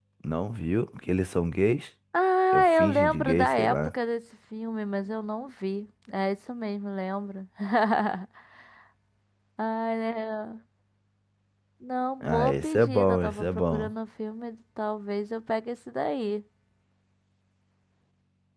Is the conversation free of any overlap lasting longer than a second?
No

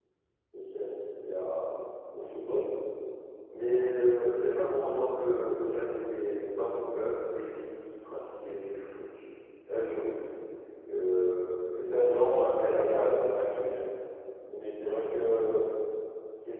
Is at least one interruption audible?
Yes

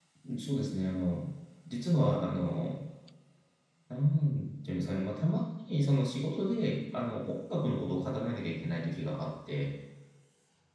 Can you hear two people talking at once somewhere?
No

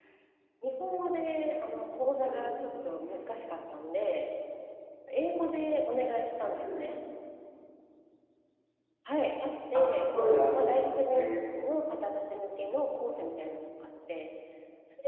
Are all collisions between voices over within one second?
No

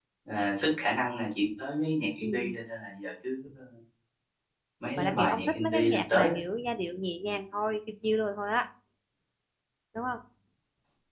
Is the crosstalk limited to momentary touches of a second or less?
No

